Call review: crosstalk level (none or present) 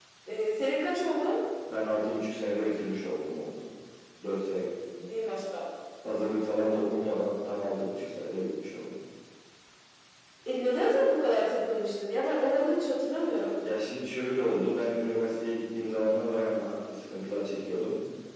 none